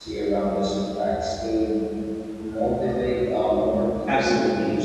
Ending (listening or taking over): taking over